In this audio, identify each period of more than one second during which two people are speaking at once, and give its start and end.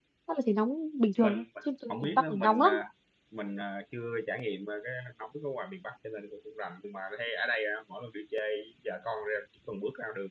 1.2-2.7

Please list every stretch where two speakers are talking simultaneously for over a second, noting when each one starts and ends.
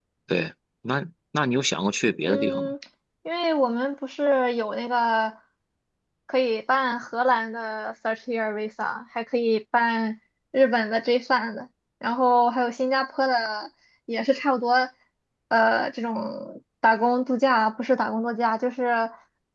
none

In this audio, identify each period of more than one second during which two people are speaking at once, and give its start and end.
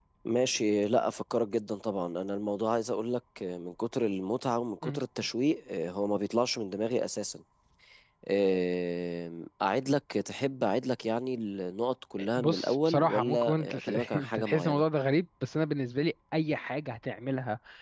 12.4-14.8

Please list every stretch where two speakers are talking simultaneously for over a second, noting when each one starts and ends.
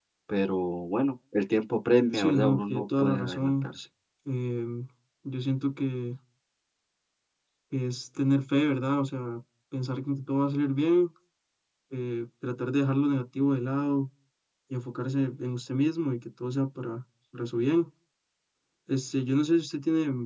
2.1-3.7

